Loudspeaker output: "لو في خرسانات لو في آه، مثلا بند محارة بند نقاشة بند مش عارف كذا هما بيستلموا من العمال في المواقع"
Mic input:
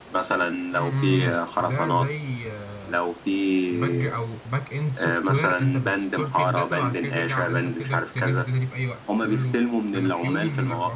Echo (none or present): present